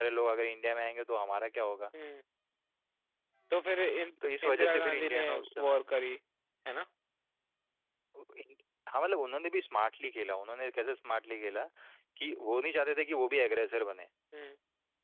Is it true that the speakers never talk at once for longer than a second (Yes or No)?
No